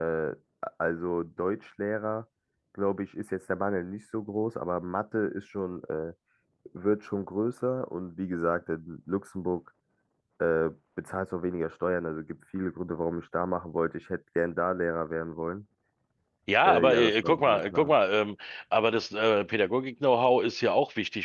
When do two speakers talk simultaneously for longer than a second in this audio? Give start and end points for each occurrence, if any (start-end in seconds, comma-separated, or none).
16.6-17.9